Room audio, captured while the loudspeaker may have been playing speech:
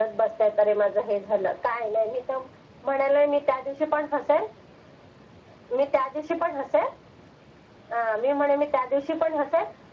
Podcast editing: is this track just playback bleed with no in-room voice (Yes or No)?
Yes